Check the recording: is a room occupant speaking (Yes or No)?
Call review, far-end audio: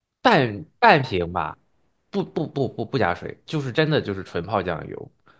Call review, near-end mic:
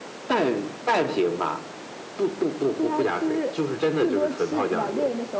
Yes